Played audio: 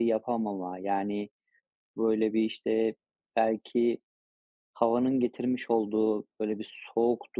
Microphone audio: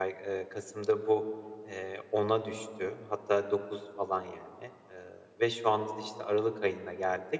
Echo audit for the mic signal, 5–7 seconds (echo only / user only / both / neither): user only